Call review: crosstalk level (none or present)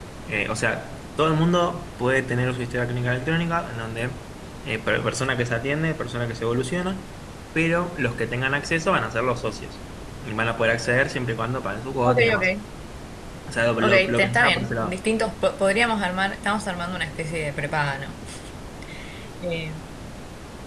present